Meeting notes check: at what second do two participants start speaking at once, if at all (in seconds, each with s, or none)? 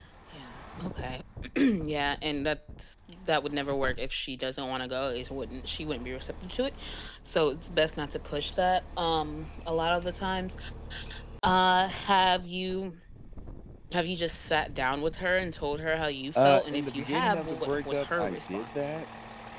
16.4 s